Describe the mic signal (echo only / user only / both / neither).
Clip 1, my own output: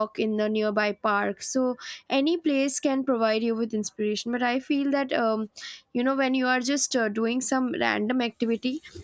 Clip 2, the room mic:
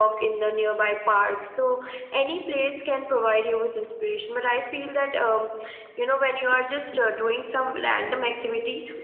echo only